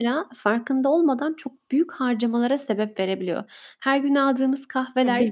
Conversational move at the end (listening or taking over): listening